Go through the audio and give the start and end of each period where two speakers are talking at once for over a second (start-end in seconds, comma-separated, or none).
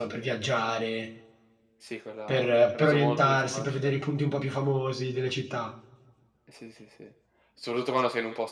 2.3-3.8